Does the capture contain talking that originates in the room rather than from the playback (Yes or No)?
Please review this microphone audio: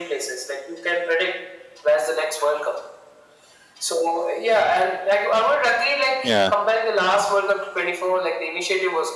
Yes